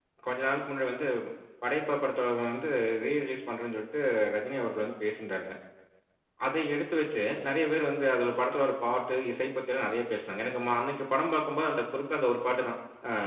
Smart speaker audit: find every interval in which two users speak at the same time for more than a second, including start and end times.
none

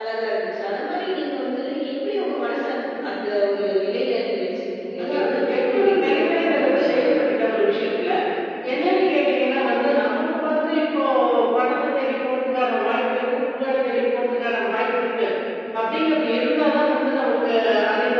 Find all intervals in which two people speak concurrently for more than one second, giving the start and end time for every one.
5.0-7.0

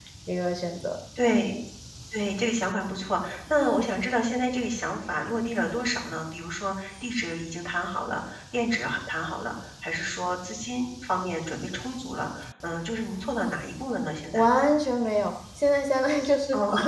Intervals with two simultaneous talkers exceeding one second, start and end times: none

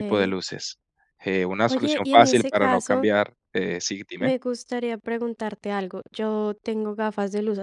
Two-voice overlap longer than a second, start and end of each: 1.7-3.1

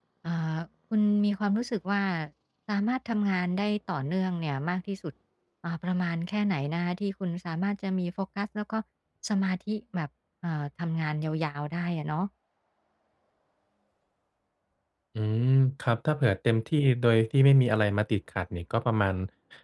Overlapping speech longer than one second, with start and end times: none

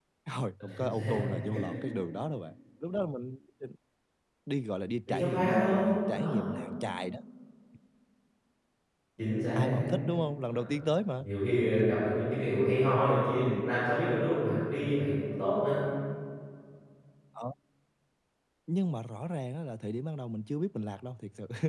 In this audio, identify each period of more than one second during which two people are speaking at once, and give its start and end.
5.1-6.5

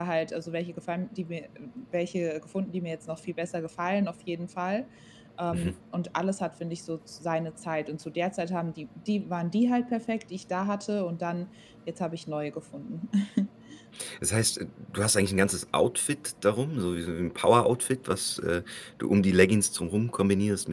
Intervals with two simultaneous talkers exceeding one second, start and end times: none

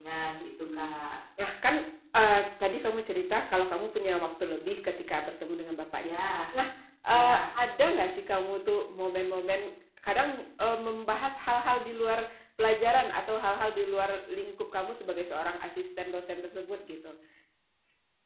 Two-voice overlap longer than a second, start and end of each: none

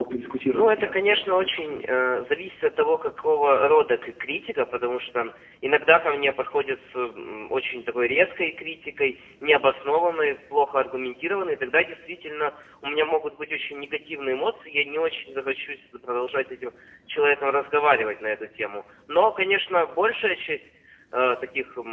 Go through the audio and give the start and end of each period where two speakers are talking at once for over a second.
0.5-1.9

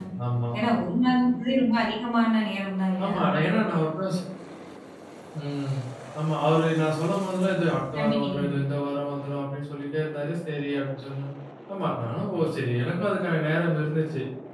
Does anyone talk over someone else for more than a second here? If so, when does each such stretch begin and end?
none

